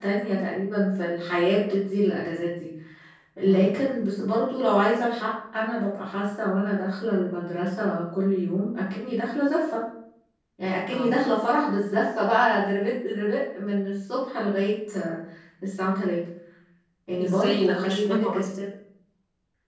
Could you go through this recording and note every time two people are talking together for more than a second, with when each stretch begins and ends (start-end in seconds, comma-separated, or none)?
17.2-18.4